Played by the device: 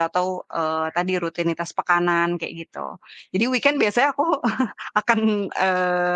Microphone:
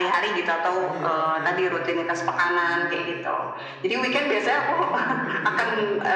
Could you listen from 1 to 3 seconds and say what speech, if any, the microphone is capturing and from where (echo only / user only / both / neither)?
both